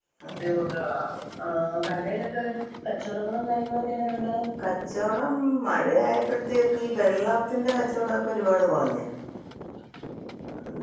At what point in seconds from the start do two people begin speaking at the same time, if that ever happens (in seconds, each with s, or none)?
none